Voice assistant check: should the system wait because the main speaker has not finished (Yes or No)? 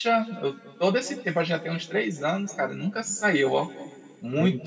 Yes